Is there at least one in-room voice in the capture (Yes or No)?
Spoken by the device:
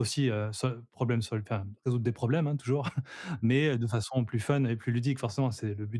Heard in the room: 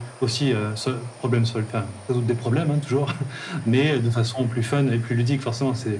No